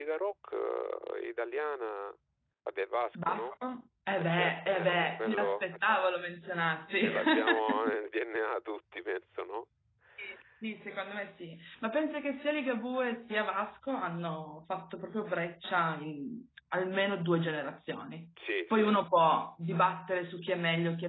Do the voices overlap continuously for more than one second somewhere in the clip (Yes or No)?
Yes